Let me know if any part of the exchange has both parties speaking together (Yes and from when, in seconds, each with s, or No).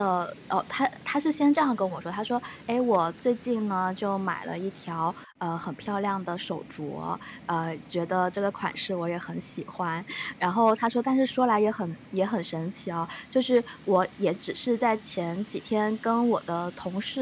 No